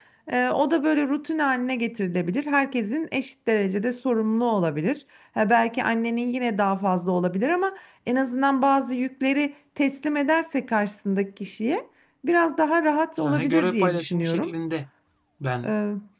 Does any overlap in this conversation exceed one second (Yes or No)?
Yes